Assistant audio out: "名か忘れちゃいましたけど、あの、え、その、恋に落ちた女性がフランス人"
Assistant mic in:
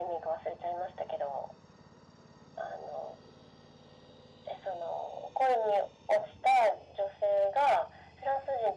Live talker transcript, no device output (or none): none